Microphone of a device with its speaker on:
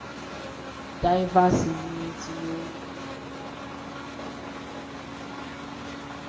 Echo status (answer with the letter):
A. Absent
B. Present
A